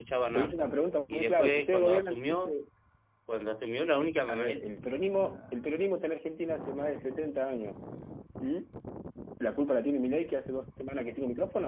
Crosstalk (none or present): present